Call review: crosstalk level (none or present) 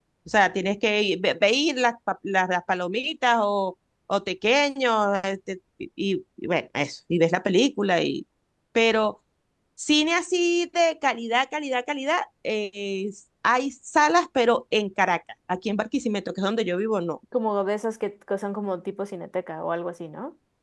none